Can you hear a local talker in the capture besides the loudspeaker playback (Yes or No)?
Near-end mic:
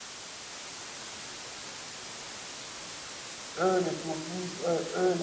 Yes